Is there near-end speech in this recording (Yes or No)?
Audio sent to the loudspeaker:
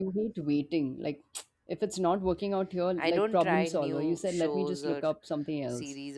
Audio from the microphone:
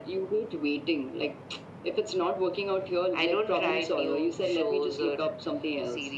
No